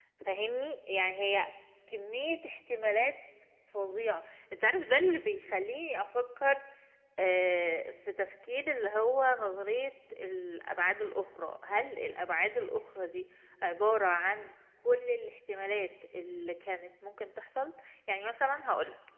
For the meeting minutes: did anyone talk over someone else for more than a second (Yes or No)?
No